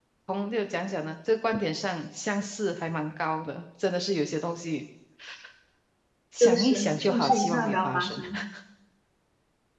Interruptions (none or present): present